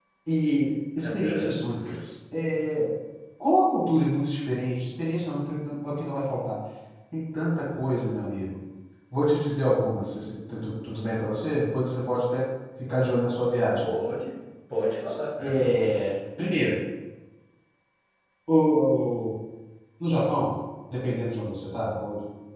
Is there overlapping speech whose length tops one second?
No

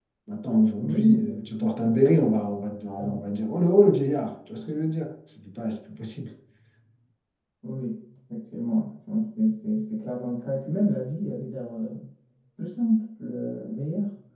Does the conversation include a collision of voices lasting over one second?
Yes, from 0.8 s

